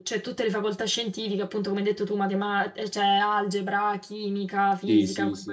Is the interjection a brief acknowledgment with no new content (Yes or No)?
No